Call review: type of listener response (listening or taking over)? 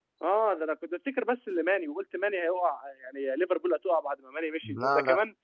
listening